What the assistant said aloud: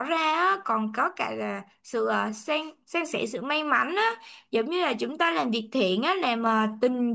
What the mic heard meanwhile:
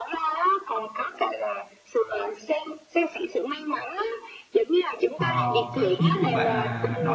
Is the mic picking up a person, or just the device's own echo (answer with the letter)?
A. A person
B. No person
A